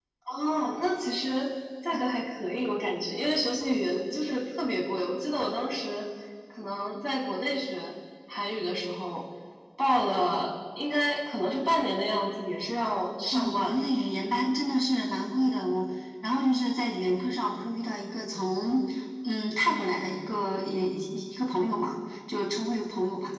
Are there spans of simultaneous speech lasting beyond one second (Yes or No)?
No